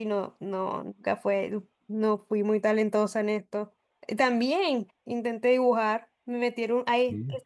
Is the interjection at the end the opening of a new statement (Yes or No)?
No